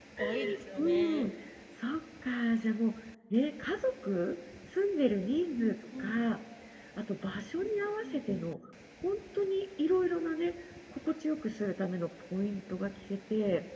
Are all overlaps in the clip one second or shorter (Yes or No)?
Yes